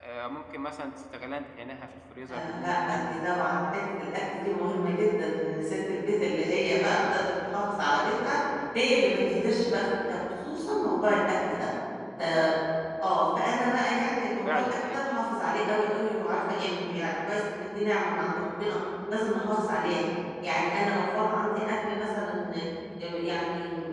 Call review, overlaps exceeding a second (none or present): present